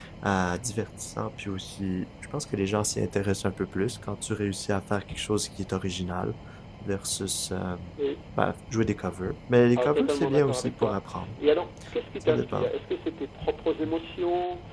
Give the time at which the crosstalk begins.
10 s

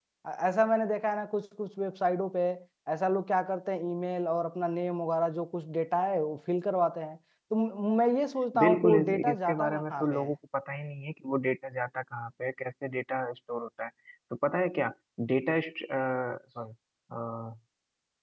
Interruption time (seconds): 9 s

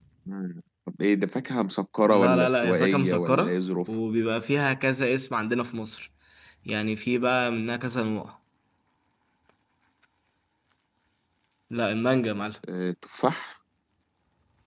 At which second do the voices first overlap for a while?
2 s

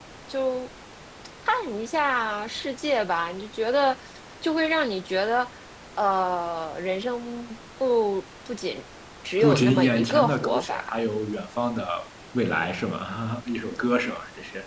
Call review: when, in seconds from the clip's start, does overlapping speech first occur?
9 s

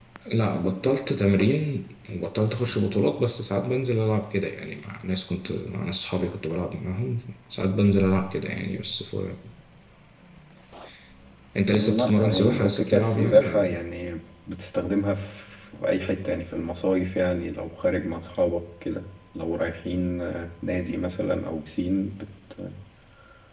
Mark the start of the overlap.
12 s

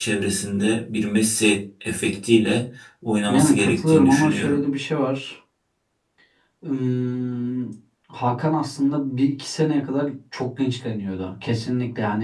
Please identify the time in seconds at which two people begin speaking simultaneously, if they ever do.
3 s

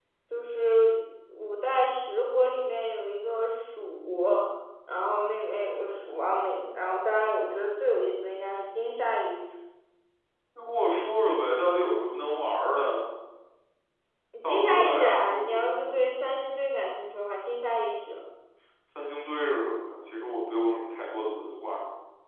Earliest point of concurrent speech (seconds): 14 s

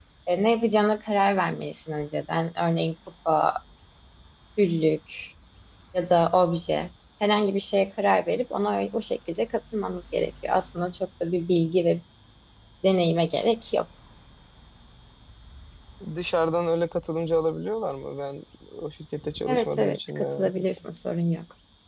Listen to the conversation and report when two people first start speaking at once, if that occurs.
19 s

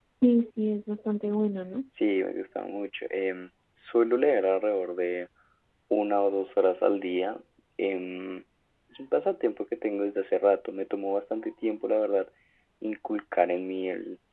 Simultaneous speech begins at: none

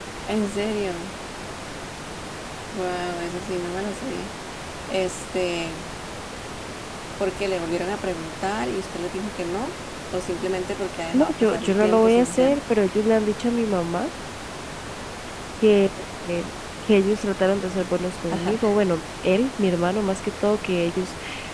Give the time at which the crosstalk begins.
11 s

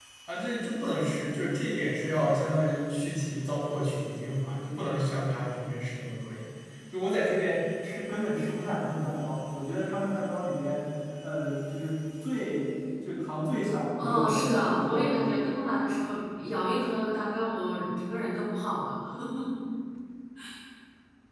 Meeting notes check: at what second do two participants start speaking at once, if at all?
14 s

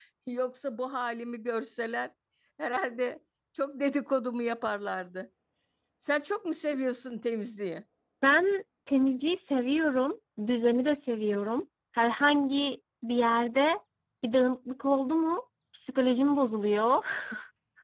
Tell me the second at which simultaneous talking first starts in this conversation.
none

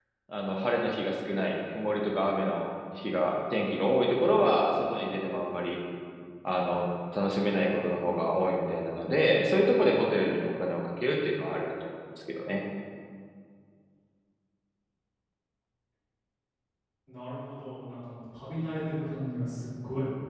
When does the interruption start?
none

